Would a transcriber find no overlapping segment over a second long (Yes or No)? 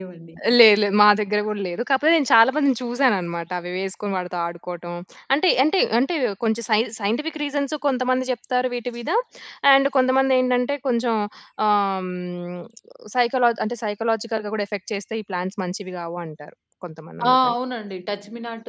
Yes